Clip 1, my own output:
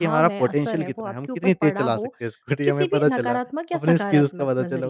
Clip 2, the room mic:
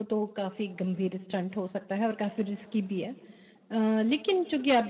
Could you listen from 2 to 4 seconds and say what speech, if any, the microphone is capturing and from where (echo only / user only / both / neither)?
user only